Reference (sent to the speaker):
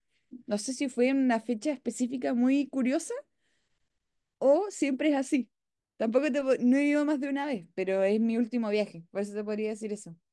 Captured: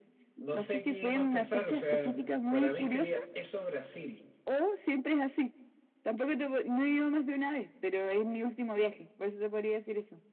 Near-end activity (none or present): present